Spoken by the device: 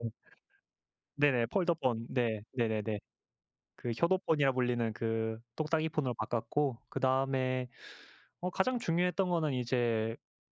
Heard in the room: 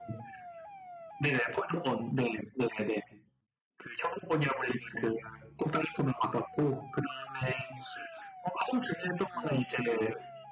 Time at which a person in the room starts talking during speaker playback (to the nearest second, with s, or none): 9 s